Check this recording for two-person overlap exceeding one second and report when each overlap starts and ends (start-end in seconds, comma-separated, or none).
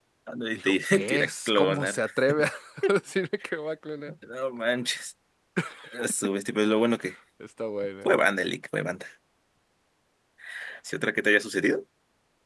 0.5-2.0